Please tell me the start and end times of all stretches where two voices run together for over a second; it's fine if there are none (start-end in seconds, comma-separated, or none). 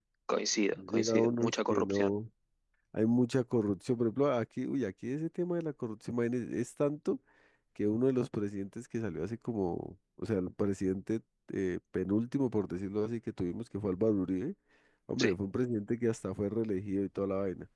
0.7-2.1